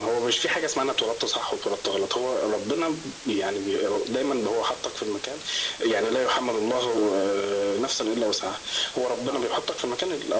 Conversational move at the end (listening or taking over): listening